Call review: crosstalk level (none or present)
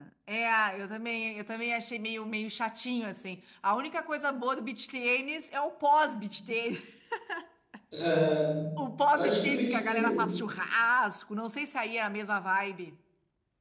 present